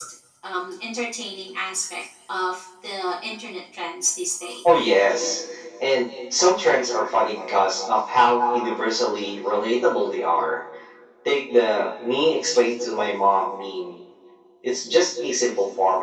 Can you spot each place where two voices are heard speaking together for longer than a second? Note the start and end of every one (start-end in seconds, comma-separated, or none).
none